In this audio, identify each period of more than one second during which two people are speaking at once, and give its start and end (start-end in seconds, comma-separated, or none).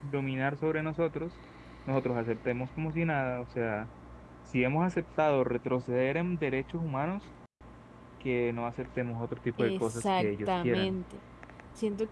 9.6-11.0